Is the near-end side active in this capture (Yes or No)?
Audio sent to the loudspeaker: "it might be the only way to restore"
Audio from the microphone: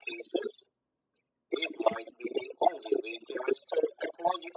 No